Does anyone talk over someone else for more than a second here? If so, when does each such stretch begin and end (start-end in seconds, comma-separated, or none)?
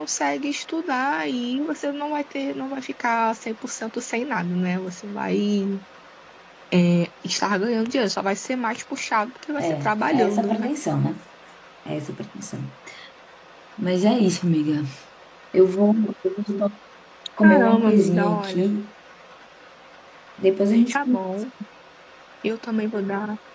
17.4-18.7